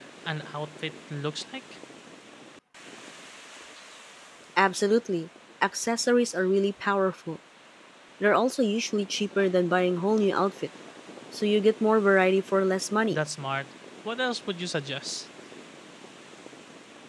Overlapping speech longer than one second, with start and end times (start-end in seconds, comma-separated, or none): none